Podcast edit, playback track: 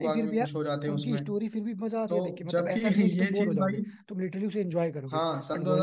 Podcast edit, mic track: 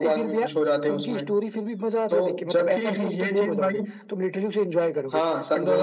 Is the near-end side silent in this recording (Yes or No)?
Yes